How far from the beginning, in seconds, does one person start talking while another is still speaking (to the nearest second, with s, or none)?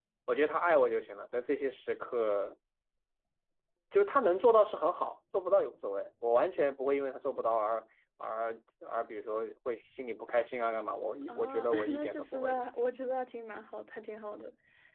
11 s